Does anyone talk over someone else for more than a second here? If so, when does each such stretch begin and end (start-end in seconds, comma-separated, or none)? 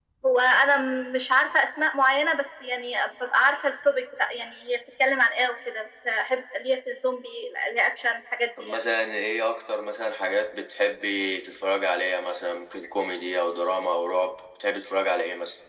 none